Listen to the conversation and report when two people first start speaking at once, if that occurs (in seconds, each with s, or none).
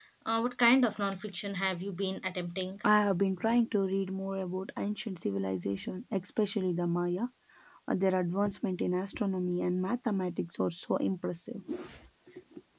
none